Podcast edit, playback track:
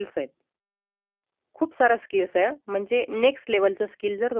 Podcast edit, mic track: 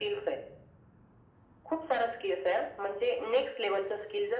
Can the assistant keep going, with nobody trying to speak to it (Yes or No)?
Yes